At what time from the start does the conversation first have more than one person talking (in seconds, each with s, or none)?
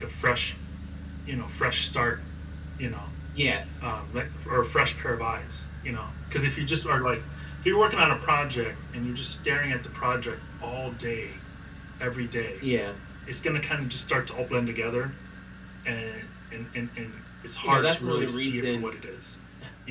17.6 s